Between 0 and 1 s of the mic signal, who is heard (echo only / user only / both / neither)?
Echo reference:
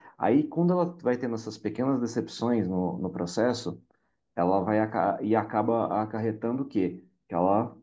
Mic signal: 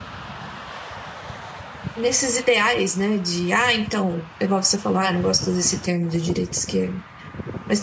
neither